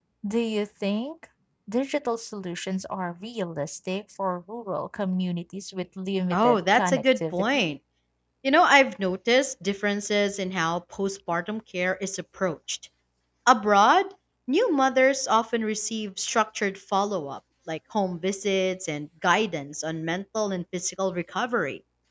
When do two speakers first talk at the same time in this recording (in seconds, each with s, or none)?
6.3 s